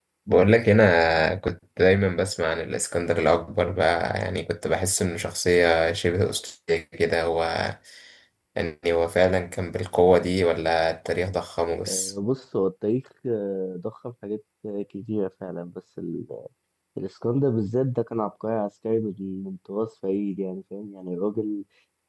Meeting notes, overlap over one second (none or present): none